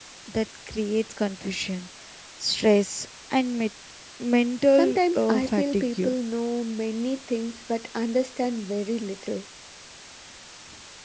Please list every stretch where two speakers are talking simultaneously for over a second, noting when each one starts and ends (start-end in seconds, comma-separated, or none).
4.8-6.1